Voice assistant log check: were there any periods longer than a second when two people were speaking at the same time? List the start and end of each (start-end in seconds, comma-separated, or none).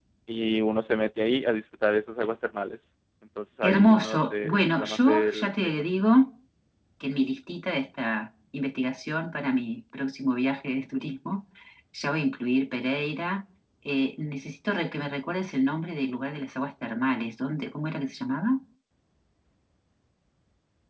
3.6-5.8